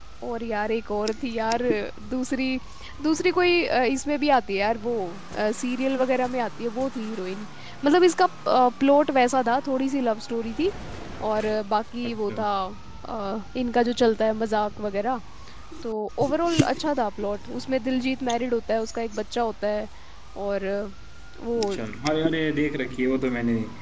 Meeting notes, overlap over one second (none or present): none